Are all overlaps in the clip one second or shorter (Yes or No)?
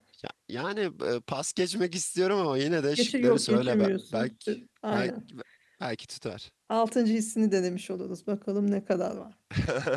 No